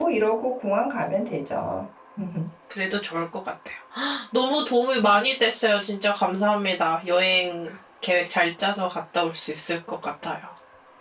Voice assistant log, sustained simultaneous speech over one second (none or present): none